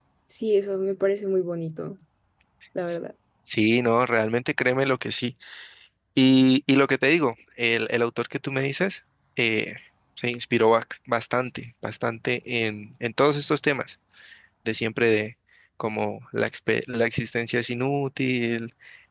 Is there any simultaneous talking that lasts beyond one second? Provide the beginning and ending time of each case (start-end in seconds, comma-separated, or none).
none